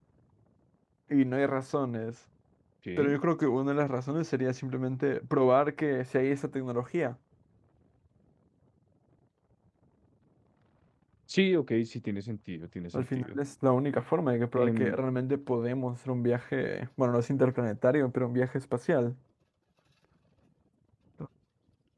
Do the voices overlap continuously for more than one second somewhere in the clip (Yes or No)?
No